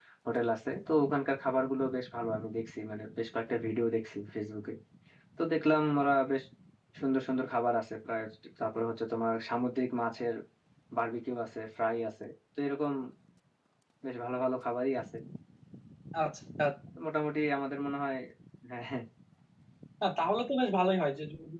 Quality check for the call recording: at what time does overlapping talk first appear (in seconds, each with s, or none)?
none